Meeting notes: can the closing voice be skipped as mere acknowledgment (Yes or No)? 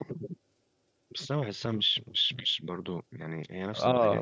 No